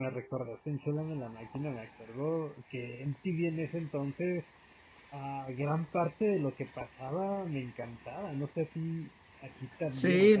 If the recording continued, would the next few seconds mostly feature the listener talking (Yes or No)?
Yes